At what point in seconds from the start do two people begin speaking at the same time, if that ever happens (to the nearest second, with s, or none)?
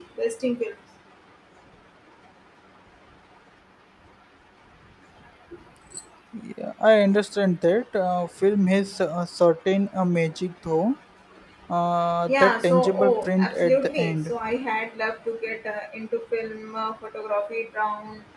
12 s